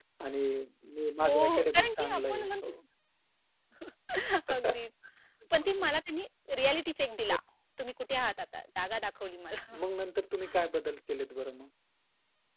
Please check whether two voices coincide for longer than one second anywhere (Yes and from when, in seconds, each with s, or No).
Yes, from 1.2 s